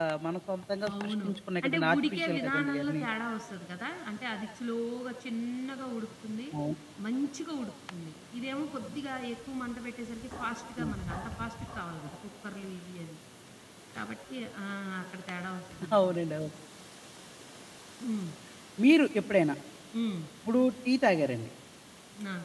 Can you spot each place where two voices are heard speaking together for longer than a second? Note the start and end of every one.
1.6-3.0

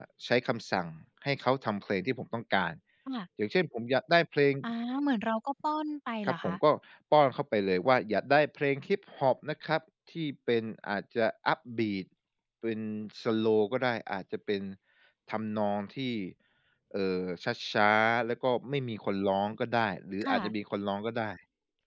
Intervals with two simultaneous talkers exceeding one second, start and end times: none

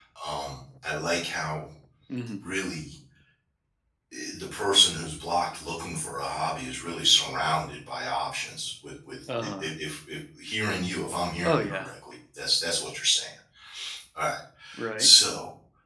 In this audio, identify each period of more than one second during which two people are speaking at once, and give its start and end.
none

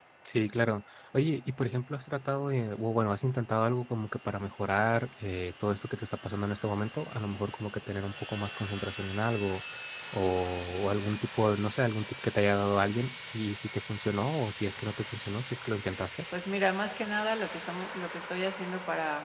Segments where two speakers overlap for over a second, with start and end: none

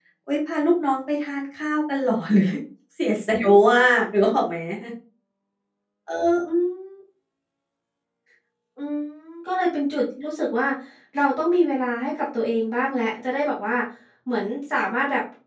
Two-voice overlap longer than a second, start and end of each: none

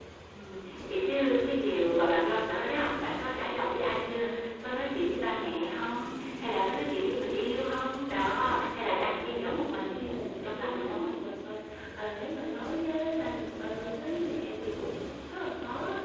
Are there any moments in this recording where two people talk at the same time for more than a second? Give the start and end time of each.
8.9-11.2

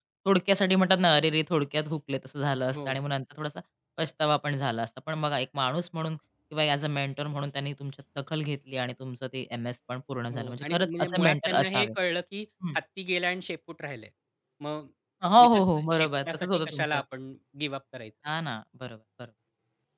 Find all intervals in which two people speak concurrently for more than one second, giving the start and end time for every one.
10.3-11.9, 15.4-17.0

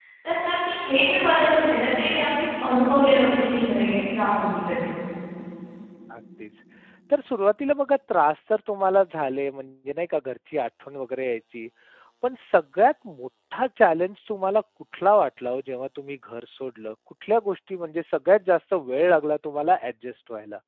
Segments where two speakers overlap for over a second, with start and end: none

